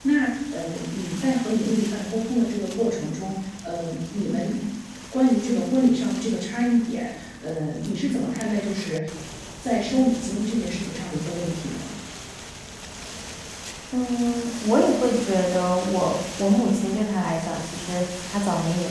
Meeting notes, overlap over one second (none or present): none